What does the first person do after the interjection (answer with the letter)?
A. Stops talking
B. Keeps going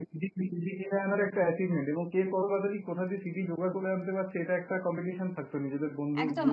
A